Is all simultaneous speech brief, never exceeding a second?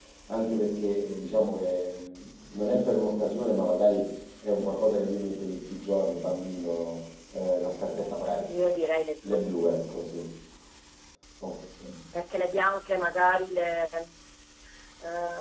Yes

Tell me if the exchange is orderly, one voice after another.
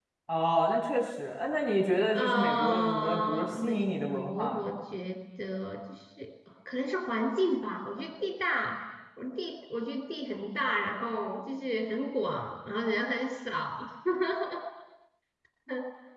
No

